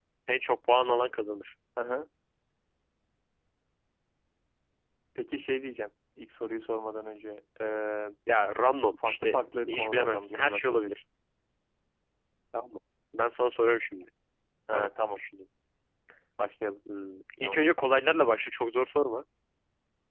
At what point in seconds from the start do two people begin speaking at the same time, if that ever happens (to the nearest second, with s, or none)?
9 s